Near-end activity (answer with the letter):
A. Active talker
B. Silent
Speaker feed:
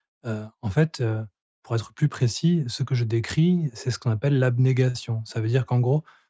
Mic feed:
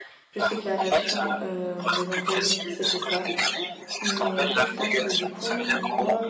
A